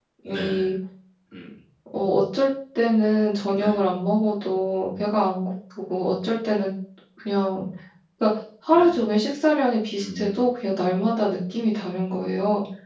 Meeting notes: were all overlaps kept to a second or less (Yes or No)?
Yes